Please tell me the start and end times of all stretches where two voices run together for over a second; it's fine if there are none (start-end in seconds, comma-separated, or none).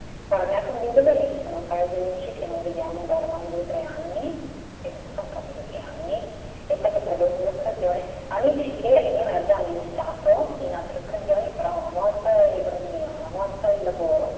none